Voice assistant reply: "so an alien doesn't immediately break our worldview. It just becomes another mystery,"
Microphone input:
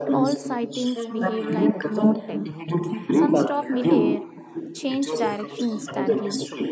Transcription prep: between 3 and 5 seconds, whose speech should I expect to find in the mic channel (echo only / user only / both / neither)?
both